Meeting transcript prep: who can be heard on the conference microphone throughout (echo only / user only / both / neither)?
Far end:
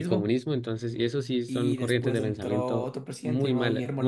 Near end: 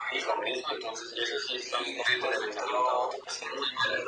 echo only